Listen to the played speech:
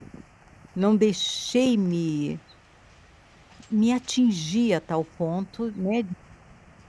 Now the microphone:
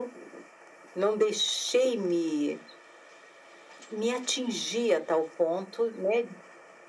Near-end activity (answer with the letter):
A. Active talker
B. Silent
B